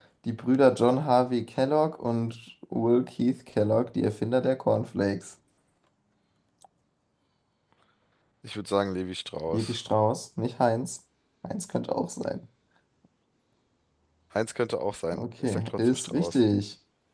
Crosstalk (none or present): present